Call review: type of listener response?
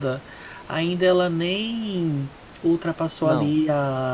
listening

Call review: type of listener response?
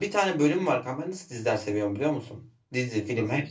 listening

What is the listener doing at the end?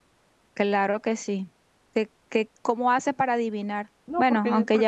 taking over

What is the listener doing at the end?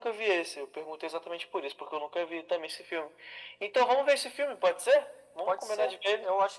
taking over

